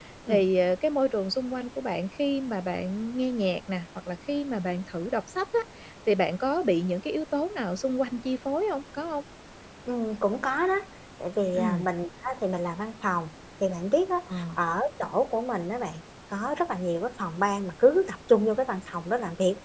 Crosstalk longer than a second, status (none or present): none